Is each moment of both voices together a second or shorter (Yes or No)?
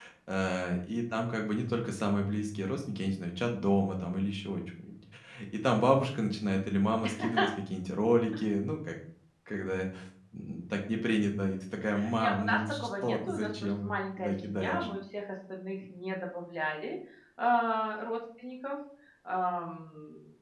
No